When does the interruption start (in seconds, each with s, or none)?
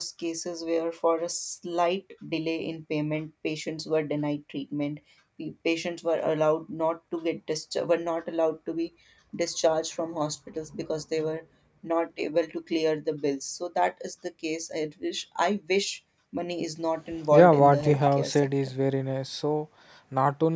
17.3 s